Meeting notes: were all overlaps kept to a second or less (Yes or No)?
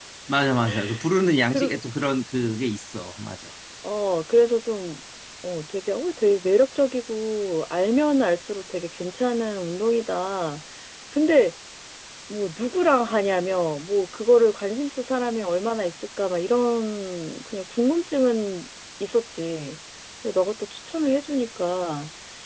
Yes